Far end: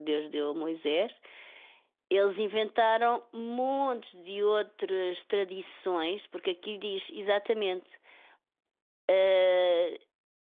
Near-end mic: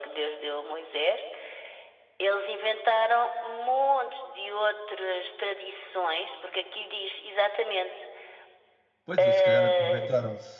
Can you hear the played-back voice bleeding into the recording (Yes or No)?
Yes